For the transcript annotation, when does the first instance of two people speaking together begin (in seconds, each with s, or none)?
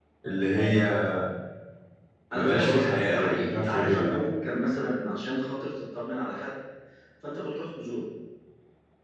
2.4 s